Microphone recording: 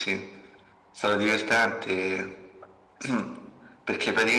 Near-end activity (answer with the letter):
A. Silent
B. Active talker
A